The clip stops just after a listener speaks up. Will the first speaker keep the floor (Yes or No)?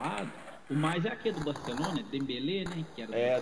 No